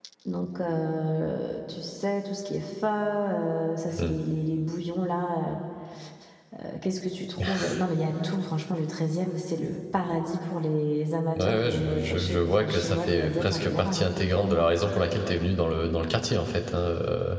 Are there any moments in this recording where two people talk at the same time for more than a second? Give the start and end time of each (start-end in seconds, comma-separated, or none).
11.4-14.7